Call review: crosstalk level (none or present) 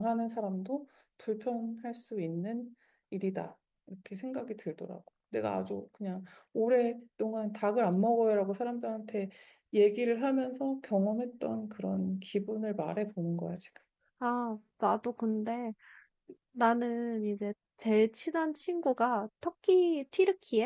none